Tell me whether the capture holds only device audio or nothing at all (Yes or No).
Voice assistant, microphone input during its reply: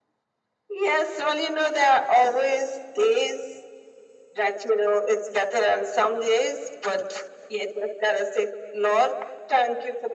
Yes